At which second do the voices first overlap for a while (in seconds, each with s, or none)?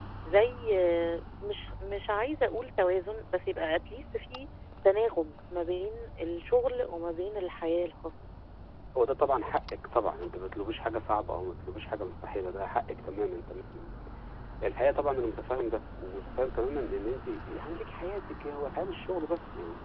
none